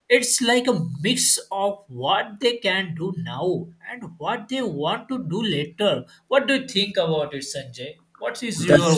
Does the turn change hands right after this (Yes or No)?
Yes